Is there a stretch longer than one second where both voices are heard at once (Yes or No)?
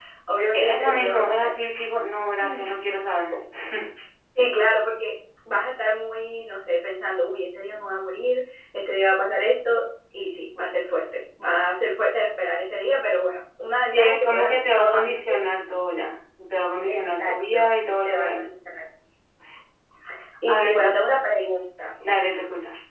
Yes